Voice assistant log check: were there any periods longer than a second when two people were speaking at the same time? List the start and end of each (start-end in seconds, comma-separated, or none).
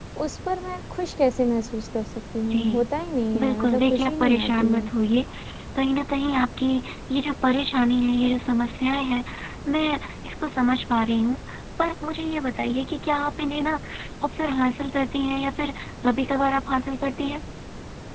3.4-4.9